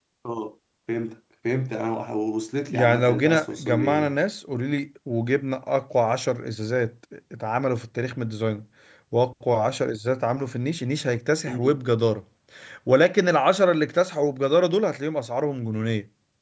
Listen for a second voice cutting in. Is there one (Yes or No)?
Yes